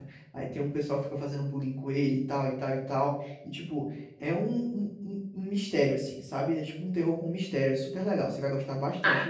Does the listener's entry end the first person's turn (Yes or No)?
Yes